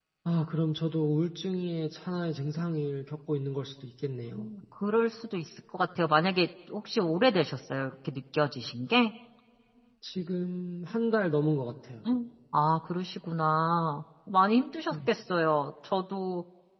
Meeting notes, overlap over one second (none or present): none